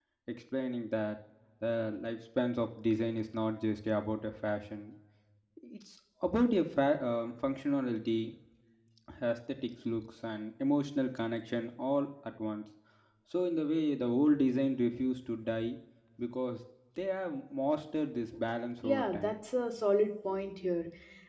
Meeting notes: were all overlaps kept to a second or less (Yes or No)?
Yes